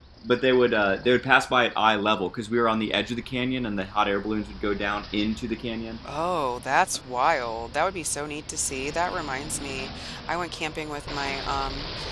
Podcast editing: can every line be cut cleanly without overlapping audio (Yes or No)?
Yes